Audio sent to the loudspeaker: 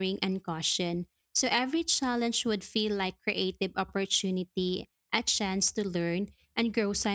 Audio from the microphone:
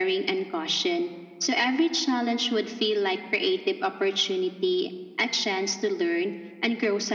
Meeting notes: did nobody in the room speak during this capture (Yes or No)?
Yes